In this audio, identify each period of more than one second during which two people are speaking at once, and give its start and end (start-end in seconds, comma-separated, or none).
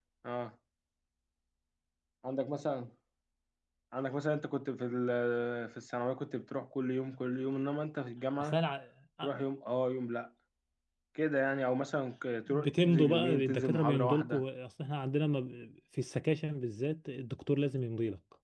12.5-14.4